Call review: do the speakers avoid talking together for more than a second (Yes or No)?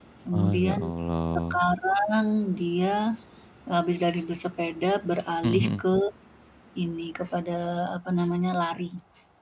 Yes